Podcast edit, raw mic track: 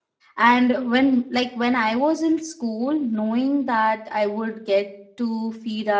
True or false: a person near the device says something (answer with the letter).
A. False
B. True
B